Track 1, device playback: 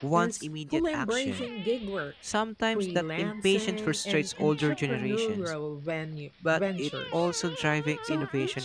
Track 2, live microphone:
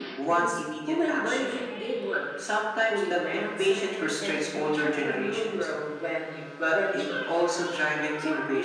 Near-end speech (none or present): none